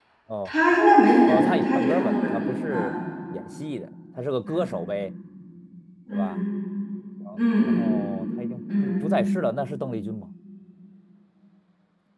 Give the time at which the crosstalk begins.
1.2 s

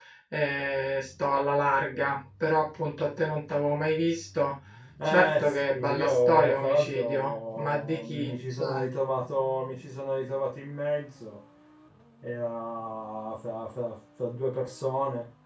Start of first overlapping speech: 5.0 s

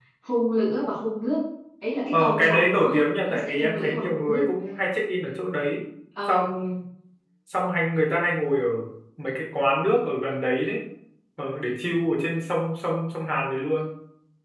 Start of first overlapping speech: 2.1 s

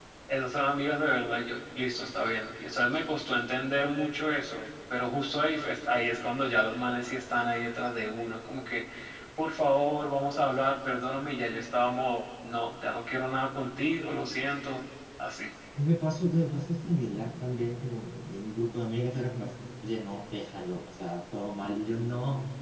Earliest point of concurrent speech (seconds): none

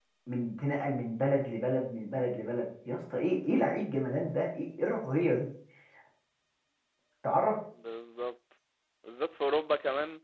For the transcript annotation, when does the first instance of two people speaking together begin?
none

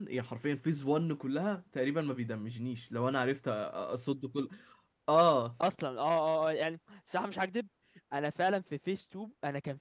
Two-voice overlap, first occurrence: none

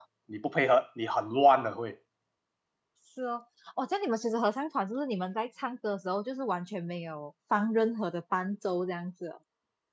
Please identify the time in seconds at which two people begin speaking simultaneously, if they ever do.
none

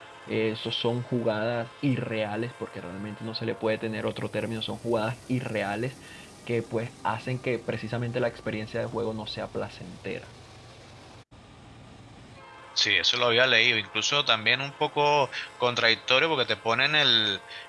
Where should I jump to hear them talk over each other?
none

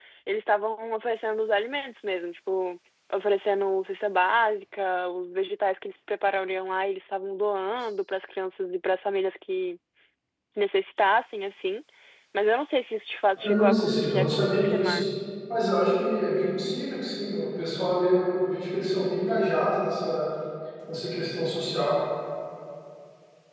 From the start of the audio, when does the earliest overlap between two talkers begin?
13.4 s

